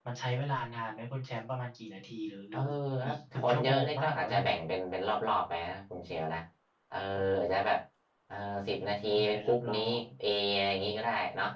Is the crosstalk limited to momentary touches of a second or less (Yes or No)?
No